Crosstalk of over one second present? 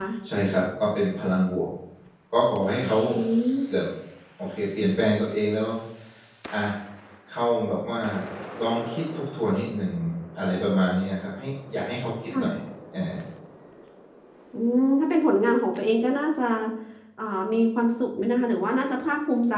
No

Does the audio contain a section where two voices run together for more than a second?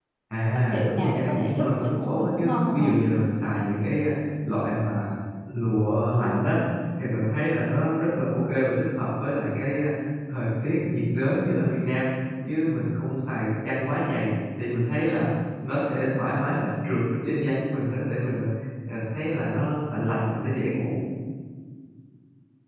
Yes, from 0.7 s

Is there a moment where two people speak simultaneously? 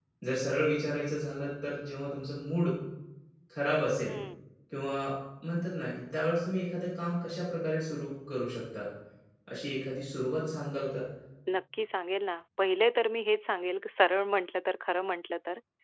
No

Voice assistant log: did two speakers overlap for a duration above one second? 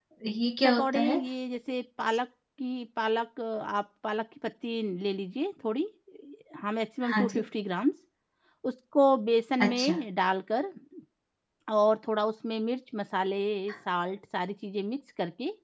No

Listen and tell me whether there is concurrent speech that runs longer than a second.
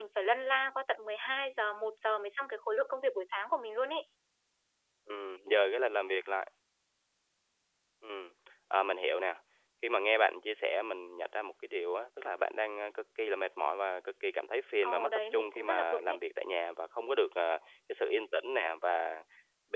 Yes, from 14.8 s

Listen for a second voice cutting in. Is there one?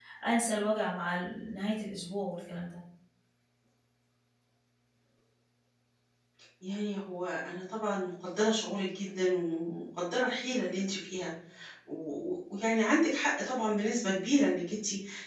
No

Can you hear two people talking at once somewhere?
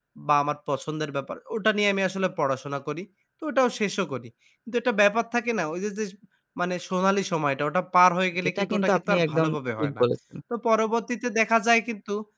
Yes, from 8.6 s

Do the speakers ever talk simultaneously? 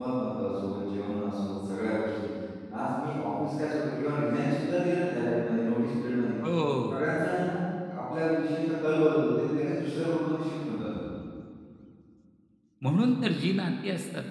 No

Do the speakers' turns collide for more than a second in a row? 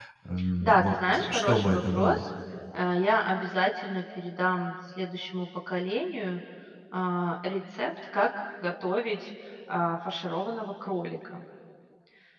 Yes, from 0.6 s

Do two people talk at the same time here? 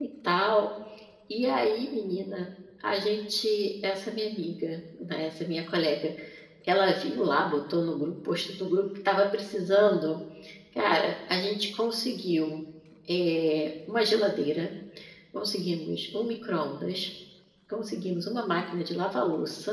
No

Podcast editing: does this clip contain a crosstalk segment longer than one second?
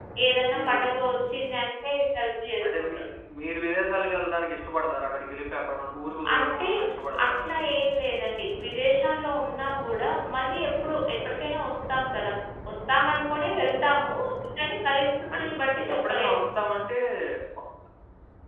No

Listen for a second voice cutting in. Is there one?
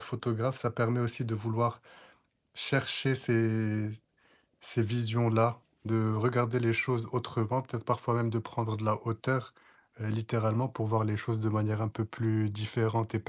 No

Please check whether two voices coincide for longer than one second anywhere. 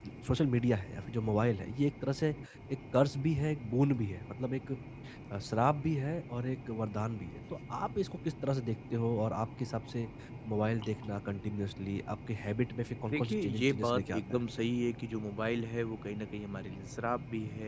Yes, from 13.1 s

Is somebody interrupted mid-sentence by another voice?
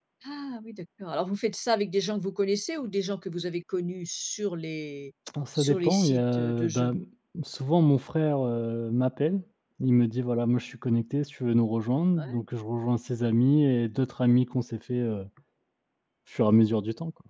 Yes, from 5.5 s

